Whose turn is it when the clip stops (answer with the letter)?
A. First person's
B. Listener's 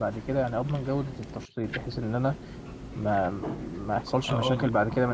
A